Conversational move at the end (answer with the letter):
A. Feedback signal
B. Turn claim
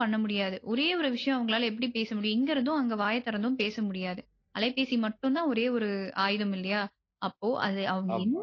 A